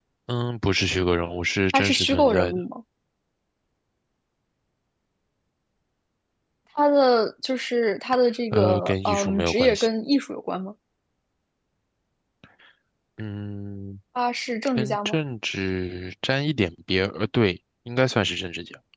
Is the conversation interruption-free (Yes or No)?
No